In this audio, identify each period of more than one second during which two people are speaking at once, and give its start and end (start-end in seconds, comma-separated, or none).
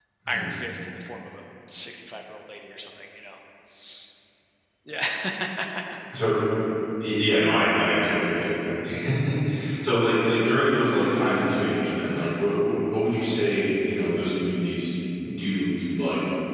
none